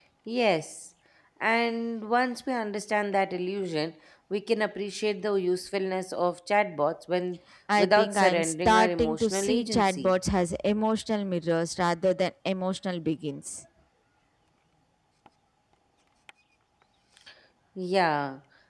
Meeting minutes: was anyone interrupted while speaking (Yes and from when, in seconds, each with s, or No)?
Yes, from 7.8 s